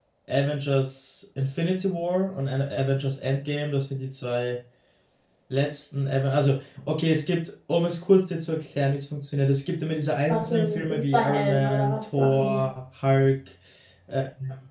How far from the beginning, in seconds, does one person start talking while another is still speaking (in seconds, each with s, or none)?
10.3 s